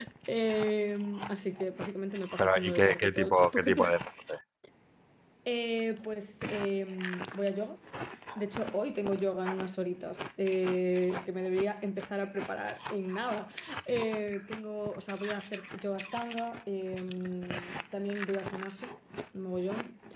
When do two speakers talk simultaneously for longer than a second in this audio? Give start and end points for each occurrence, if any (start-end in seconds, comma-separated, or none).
2.4-3.7